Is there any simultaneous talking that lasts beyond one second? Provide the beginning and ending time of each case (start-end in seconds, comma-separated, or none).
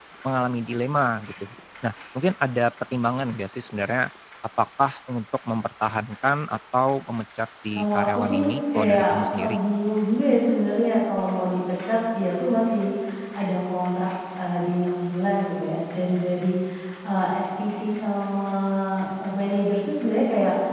7.7-9.6